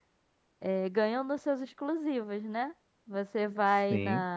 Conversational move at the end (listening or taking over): listening